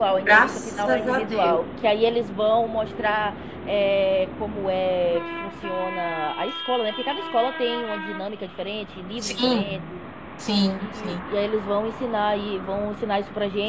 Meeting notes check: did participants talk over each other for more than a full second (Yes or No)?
Yes